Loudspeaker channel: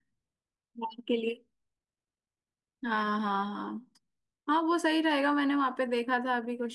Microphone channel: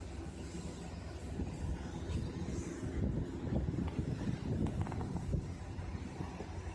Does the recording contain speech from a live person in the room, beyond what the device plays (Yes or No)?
No